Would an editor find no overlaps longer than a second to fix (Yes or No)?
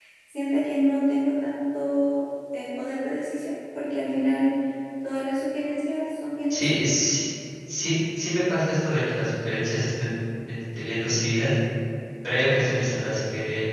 Yes